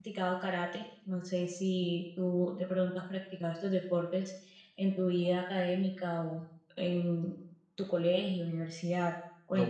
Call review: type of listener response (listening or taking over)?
taking over